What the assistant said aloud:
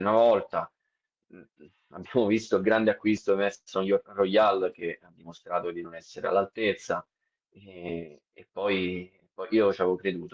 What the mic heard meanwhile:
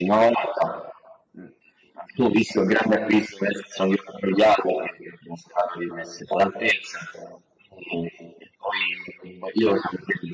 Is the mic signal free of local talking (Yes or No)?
Yes